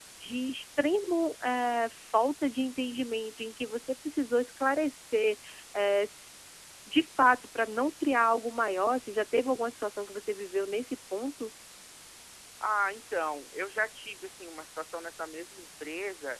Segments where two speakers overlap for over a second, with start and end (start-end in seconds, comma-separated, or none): none